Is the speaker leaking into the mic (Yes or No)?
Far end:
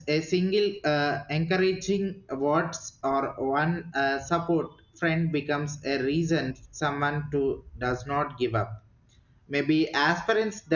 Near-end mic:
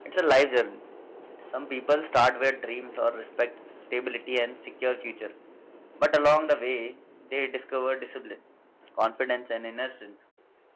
No